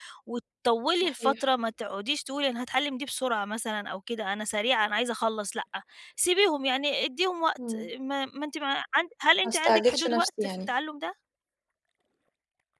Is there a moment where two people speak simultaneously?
Yes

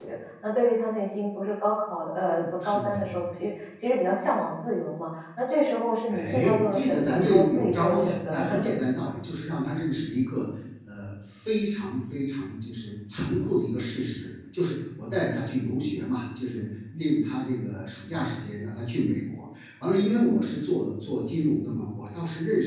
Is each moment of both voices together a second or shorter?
No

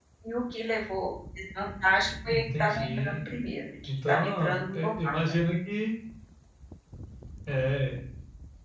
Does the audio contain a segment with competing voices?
Yes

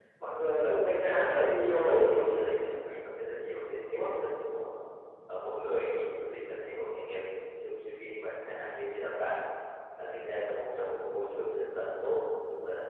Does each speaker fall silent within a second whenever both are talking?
No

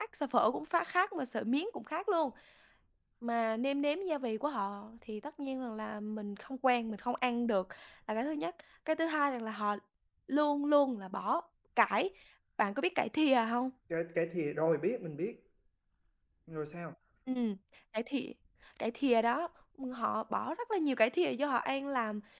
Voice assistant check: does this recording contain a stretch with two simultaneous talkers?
No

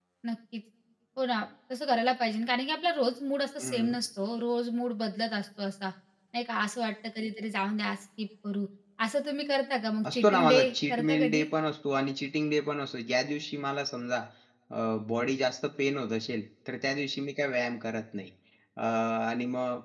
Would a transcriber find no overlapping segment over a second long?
No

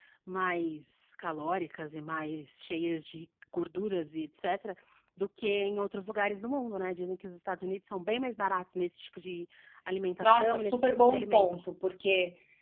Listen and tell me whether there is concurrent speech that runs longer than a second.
Yes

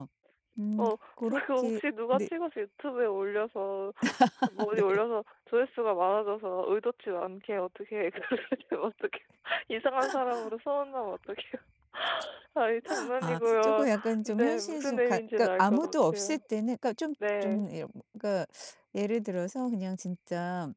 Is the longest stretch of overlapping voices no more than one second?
No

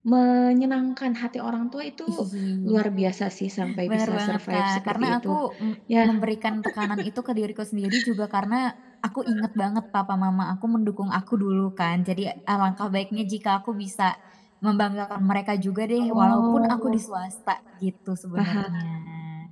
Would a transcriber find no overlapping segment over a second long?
No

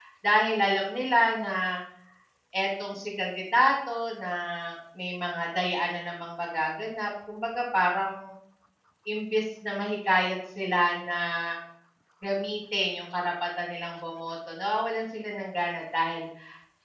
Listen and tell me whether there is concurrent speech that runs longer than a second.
No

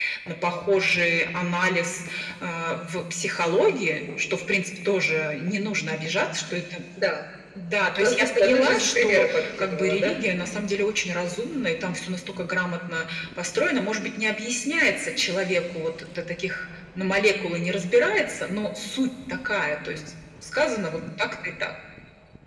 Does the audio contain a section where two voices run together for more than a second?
Yes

